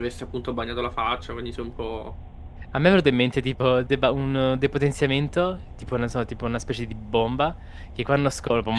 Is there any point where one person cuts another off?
No

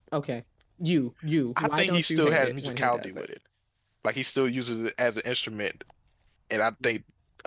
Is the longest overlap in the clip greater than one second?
Yes, from 1.6 s

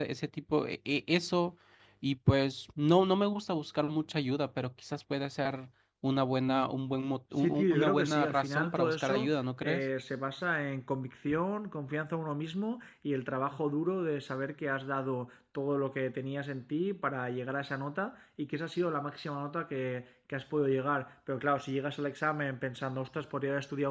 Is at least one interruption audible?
Yes, from 7.4 s

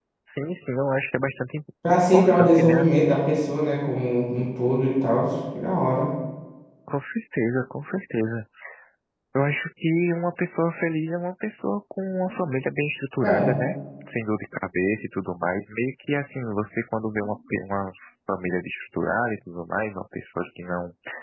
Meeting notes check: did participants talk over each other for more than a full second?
Yes, from 1.9 s

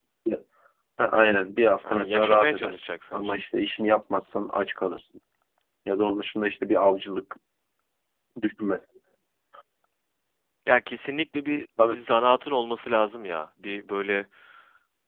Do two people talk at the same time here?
Yes, from 1.8 s

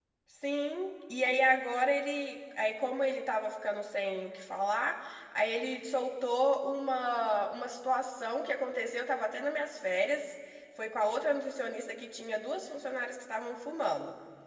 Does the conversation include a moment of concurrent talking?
No

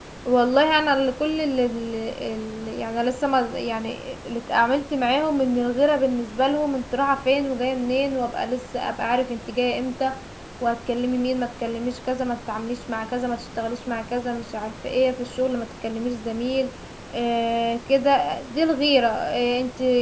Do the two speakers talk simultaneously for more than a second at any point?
No

